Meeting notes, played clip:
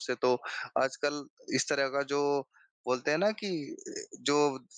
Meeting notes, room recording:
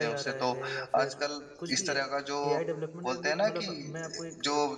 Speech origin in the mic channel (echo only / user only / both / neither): both